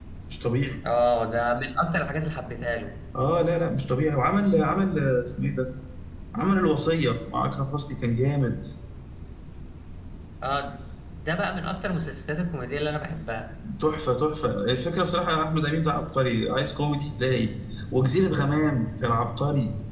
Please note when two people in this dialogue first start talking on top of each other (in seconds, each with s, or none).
none